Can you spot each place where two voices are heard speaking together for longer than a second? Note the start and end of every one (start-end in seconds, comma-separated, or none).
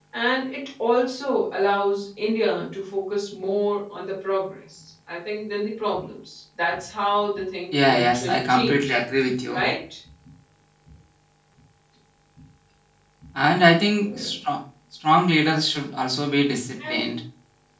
7.7-8.9